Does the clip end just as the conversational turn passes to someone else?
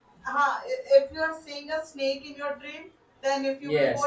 No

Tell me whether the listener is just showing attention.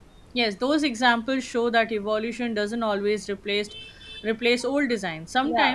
Yes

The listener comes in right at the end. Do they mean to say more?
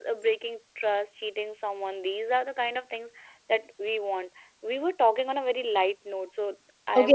Yes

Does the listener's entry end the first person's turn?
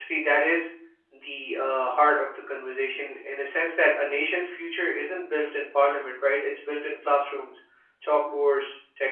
No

